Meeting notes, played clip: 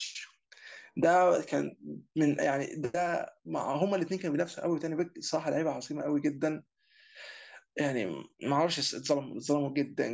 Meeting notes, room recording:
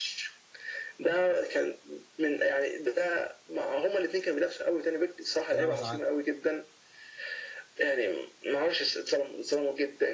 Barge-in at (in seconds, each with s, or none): 5.5 s